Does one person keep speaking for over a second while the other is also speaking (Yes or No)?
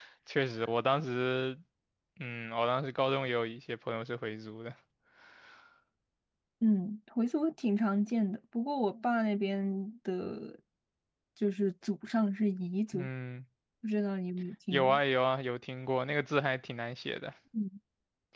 No